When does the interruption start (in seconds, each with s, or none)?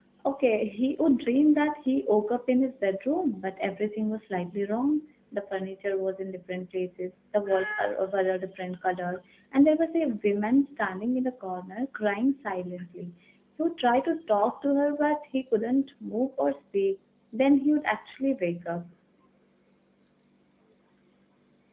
none